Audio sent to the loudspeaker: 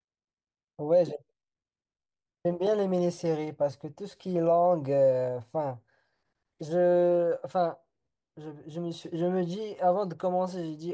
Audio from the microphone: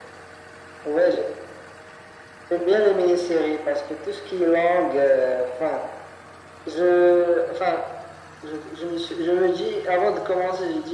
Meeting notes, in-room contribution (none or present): none